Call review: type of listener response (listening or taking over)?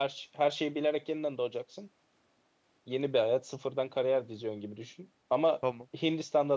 listening